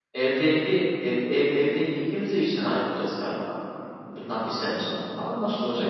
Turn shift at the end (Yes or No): Yes